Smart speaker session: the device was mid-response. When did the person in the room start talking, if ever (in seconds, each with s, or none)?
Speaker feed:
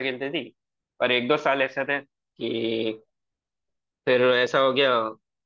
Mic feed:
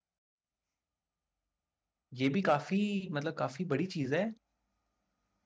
2.2 s